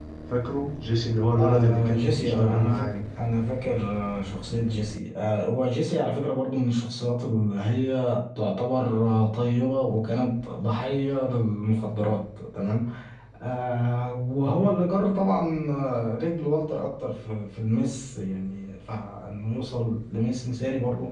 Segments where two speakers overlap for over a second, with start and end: 1.4-3.0

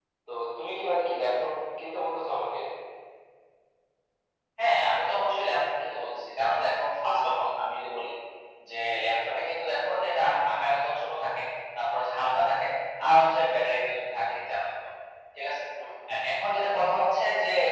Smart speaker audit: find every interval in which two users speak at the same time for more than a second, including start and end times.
none

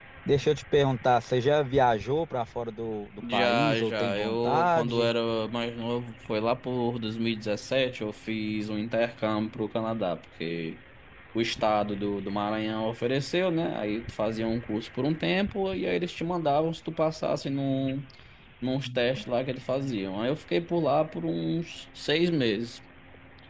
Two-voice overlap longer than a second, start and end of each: 3.2-5.1

